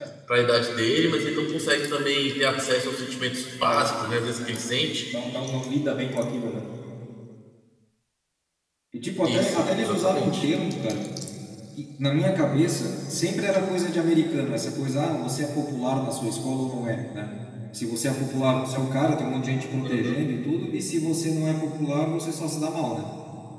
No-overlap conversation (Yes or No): No